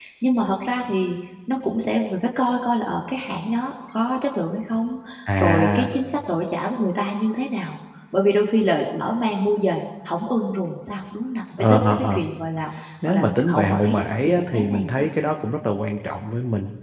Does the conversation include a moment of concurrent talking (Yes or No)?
Yes